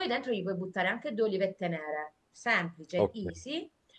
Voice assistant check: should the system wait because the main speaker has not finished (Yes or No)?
Yes